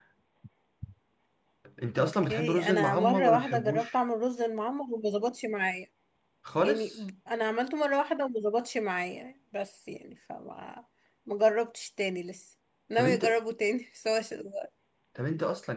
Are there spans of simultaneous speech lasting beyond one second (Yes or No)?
Yes